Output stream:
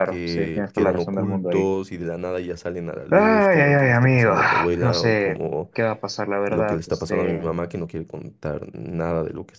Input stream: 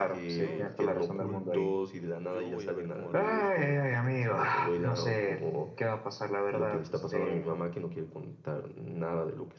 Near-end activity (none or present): present